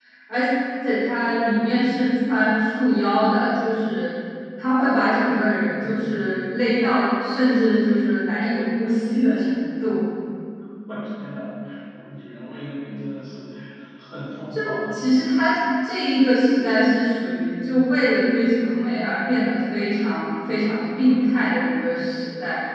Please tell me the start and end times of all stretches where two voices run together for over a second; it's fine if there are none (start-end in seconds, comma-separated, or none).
none